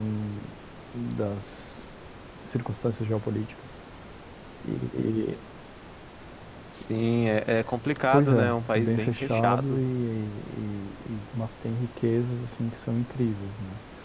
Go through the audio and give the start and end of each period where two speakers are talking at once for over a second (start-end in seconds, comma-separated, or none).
8.1-9.8